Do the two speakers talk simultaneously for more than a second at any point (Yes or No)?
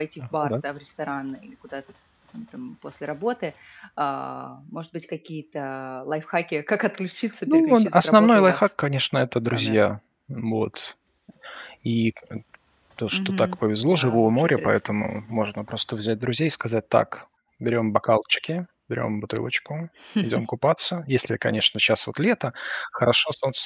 Yes